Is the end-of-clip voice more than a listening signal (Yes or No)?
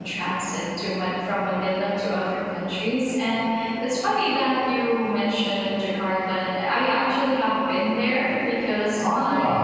No